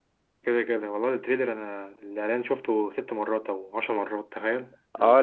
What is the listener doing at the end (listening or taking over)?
taking over